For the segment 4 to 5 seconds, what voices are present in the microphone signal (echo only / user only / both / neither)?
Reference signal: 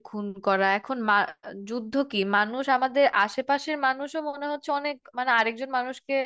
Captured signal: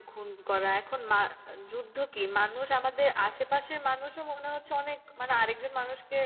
echo only